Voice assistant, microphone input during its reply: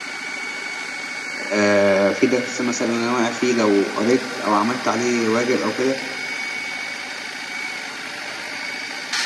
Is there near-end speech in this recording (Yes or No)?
Yes